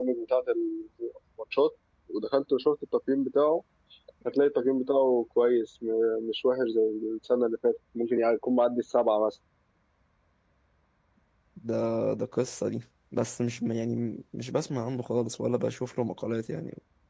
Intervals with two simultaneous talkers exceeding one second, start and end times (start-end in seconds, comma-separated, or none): none